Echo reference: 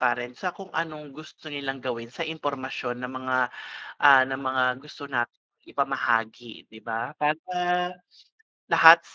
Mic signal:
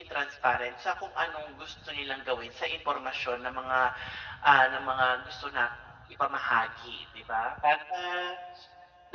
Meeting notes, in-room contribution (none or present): none